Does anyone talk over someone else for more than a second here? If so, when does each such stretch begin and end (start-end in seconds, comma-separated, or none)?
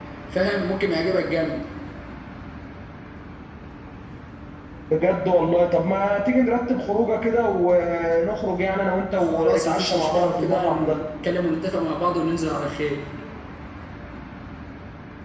9.2-11.0